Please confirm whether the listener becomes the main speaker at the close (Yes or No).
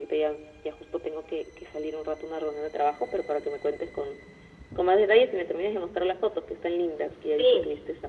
Yes